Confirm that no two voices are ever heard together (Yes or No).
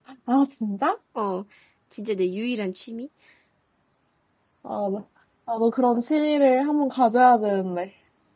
Yes